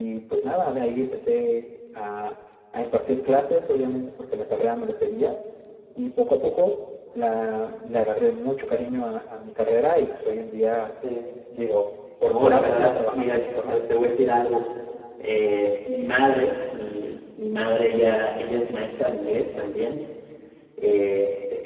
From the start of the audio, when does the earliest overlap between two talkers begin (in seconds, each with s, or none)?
12.2 s